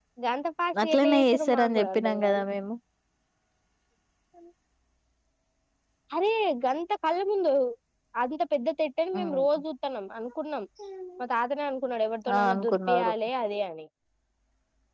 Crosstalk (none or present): present